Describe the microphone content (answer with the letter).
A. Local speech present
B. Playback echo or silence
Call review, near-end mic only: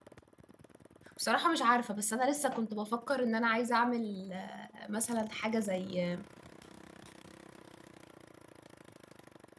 A